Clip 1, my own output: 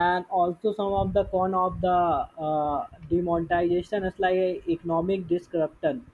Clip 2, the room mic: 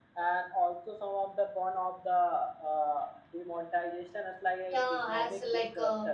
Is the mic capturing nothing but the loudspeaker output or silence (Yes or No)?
No